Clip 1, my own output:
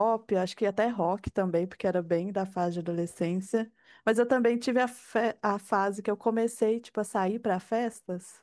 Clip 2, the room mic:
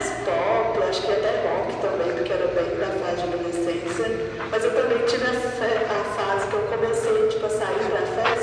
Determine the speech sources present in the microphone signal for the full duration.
echo only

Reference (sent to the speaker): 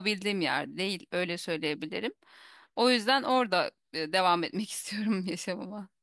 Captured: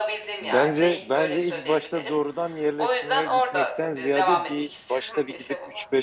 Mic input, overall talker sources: both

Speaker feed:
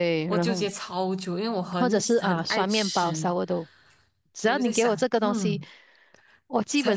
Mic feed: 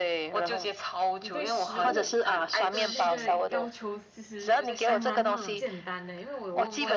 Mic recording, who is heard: both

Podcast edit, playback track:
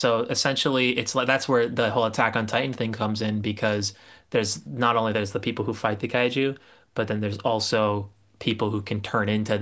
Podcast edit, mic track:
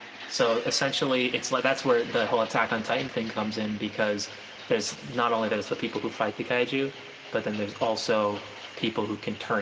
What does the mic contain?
echo only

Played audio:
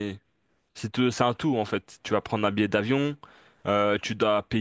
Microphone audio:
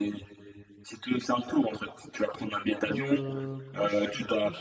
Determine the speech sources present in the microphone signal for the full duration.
both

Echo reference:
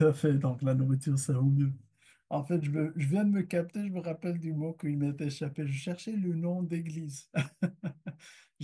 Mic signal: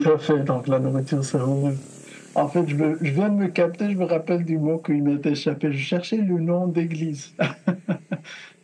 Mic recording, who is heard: echo only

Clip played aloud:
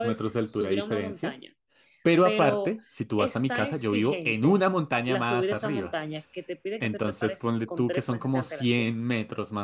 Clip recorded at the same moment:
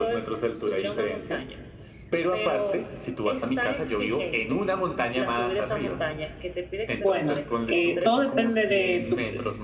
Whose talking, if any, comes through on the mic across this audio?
both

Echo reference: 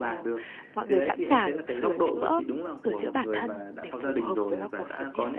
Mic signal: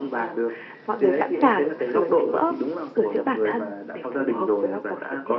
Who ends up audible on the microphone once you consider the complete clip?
echo only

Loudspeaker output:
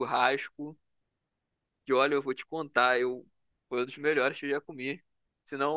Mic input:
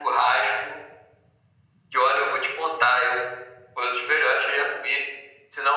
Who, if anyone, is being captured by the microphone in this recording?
echo only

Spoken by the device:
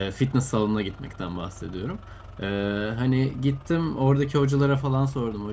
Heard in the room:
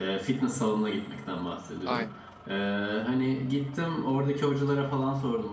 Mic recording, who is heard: both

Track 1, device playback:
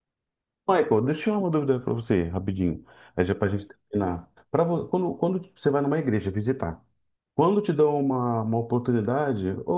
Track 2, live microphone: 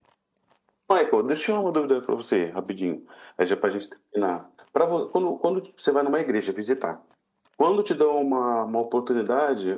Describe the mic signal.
echo only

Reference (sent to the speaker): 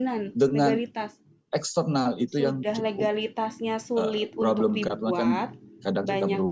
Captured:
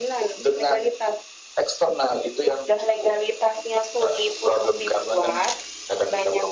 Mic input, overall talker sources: echo only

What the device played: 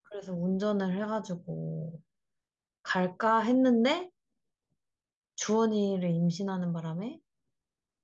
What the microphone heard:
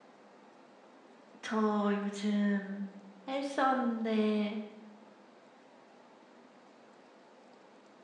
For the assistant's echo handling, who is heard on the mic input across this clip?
user only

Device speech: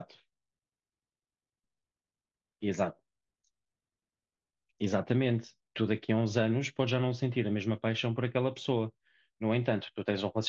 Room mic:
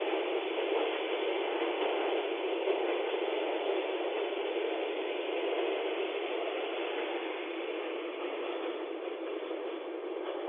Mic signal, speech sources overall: neither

